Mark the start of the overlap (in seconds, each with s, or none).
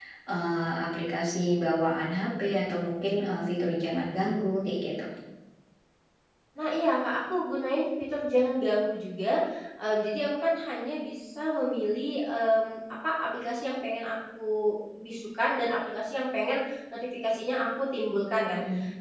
none